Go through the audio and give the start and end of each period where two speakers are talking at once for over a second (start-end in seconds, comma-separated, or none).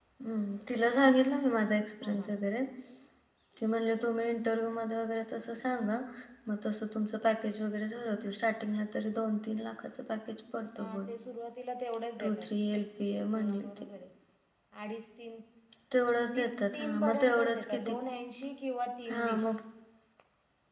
16.3-18.0